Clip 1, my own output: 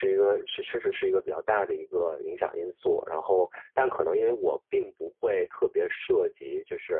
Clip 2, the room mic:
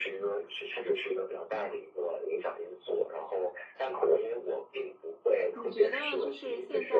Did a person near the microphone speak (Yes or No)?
Yes